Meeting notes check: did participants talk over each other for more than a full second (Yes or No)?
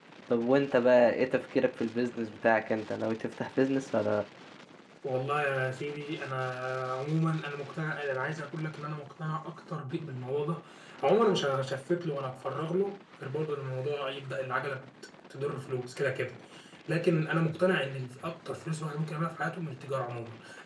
No